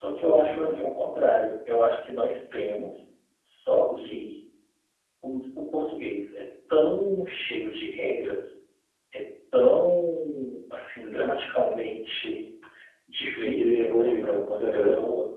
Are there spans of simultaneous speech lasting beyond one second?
Yes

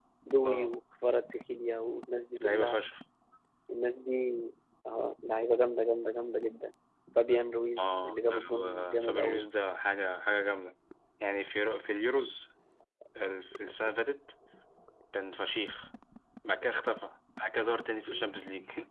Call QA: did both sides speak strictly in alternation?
No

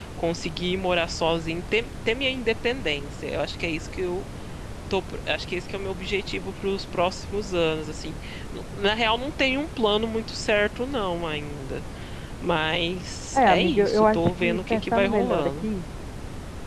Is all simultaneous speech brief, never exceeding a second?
No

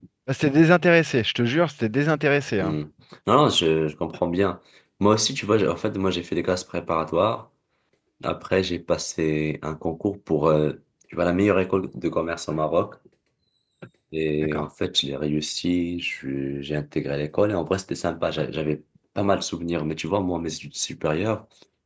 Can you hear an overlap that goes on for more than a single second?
No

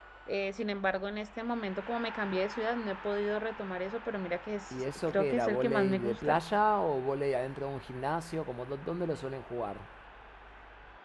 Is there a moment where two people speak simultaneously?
Yes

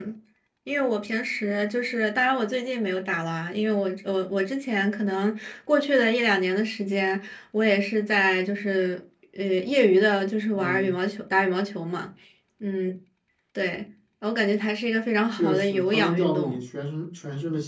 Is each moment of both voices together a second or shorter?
No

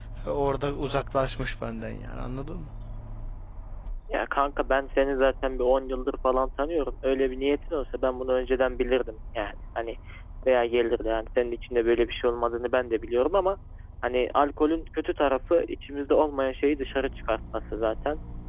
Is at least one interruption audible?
No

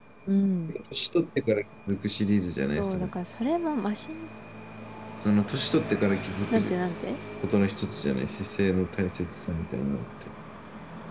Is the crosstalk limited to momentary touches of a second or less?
Yes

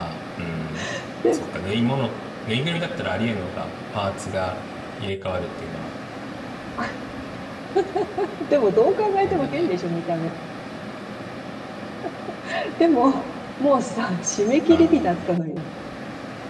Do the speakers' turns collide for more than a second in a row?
No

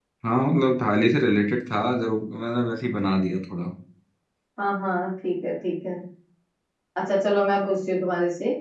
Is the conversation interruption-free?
Yes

